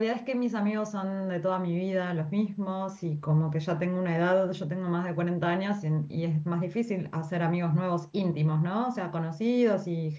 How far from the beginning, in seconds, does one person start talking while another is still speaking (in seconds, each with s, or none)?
none